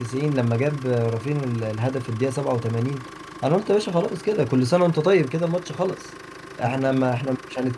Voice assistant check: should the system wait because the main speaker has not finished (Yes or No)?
Yes